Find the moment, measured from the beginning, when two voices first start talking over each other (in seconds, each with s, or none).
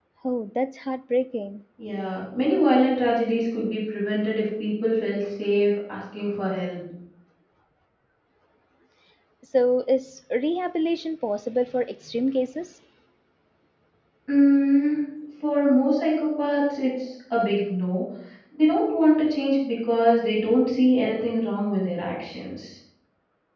none